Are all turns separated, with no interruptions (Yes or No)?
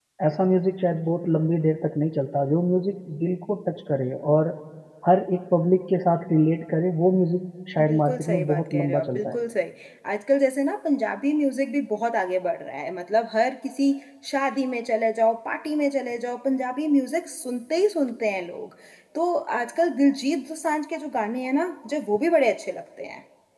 No